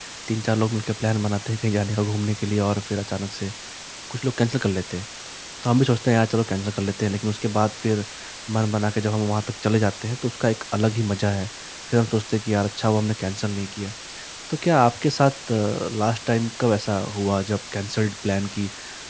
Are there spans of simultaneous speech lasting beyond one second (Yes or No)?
No